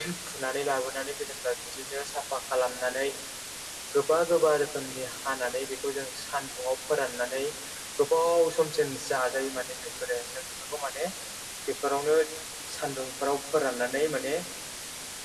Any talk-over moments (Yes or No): No